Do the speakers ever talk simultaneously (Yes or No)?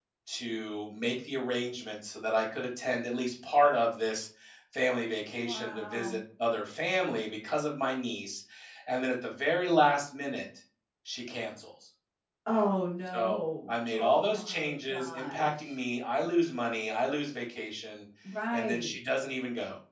Yes